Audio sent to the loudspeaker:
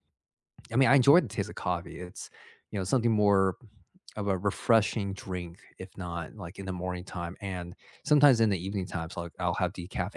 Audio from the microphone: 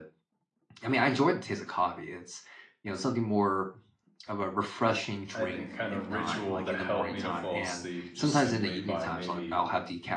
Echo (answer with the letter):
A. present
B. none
A